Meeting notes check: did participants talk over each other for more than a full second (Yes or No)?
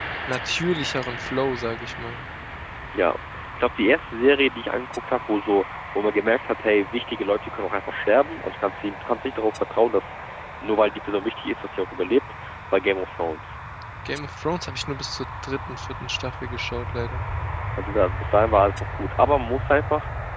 No